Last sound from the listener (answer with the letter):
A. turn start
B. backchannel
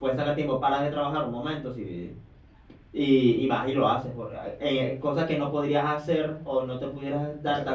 B